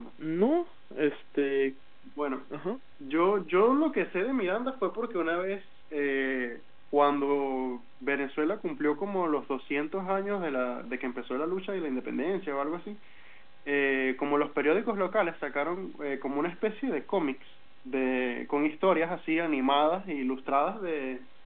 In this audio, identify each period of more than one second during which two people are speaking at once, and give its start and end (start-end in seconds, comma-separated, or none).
none